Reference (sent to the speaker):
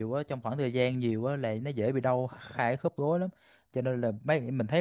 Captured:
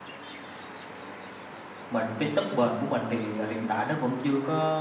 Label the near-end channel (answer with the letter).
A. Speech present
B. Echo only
A